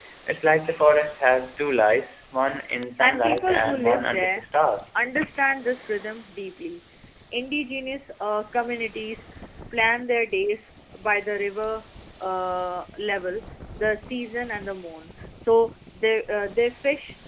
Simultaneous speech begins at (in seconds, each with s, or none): 3.0 s